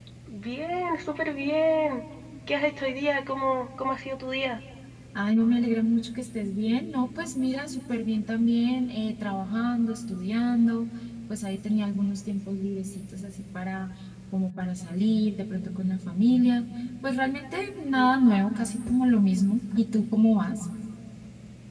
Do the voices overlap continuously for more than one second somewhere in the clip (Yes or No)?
No